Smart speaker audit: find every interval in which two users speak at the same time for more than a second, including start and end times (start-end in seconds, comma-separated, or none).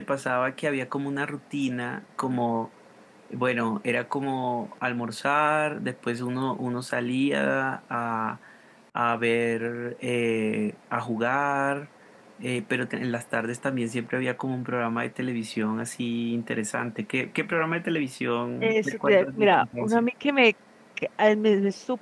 18.6-20.0